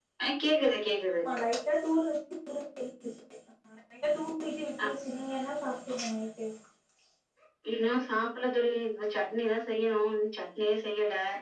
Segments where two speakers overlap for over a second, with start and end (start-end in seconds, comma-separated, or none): none